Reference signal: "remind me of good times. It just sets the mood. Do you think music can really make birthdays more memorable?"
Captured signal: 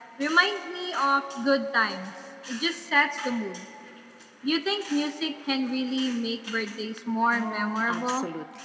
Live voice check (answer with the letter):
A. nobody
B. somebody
B